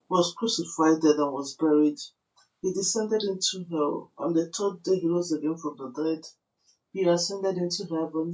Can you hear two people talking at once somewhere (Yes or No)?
No